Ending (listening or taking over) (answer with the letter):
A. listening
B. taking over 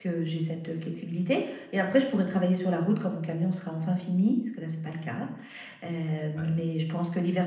A